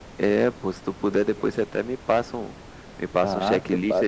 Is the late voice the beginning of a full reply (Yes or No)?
Yes